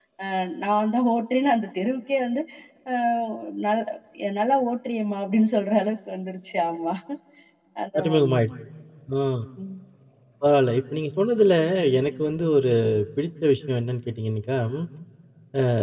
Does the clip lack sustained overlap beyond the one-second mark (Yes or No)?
Yes